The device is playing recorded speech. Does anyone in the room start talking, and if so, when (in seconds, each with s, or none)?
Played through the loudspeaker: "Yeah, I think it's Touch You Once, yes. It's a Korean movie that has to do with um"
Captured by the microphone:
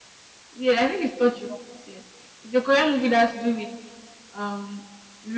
none